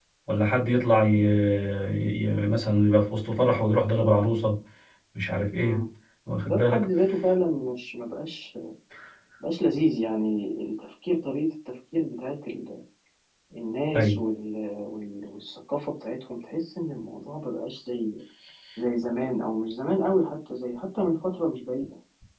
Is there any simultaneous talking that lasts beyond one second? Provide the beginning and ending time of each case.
none

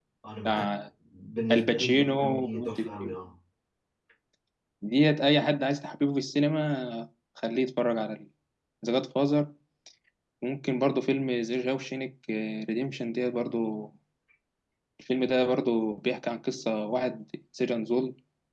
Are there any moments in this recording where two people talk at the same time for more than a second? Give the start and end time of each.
1.5-3.2

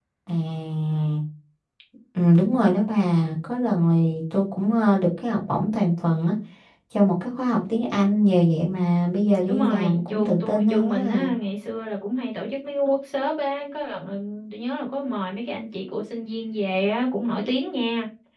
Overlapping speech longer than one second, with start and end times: 9.5-11.3

